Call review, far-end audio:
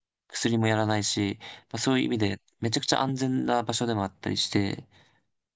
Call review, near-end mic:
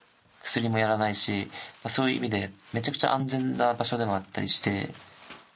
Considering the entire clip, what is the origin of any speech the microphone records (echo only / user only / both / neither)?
echo only